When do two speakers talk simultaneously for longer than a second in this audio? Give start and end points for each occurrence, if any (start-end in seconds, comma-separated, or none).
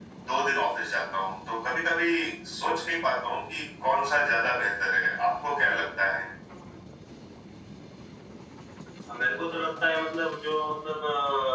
none